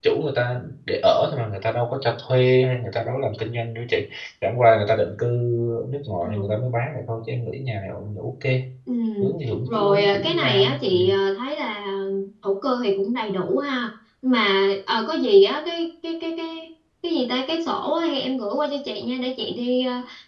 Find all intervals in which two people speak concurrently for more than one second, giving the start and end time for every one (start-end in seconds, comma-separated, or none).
9.7-11.0